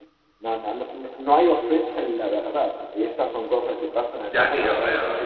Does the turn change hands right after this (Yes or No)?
Yes